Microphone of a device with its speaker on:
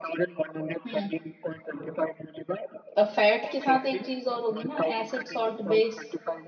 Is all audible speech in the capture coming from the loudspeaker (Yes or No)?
No